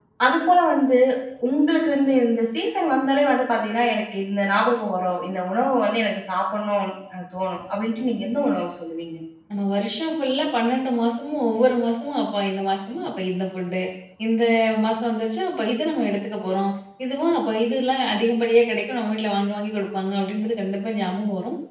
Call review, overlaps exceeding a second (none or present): none